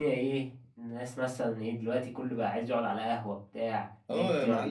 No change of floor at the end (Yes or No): No